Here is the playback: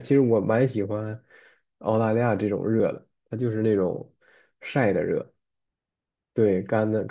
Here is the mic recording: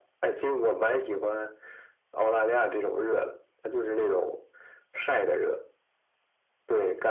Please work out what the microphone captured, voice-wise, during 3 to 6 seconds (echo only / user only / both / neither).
echo only